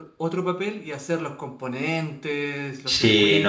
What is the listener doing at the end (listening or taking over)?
taking over